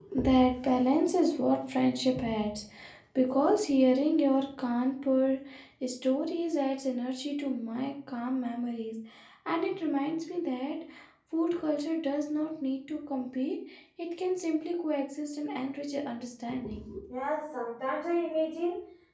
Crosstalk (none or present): none